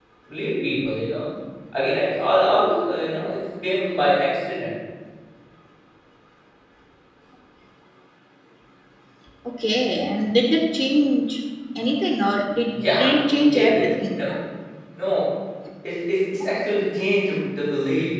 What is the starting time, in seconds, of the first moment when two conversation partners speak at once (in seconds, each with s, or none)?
12.8 s